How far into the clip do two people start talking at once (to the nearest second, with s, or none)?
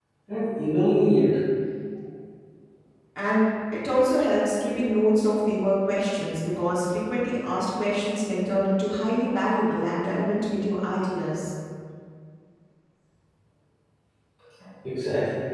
none